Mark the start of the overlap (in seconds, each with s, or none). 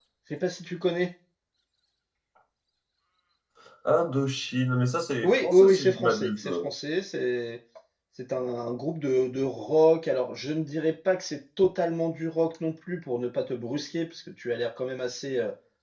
5.2 s